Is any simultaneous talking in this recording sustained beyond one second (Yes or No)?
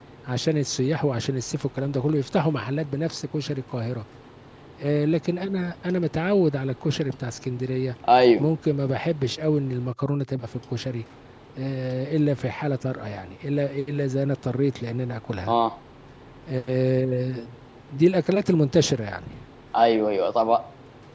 No